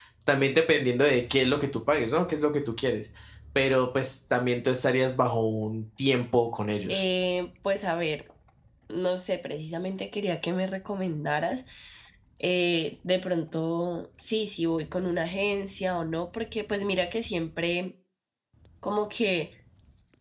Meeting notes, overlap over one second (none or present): none